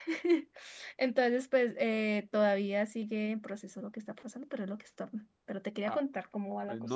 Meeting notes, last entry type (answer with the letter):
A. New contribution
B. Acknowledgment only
A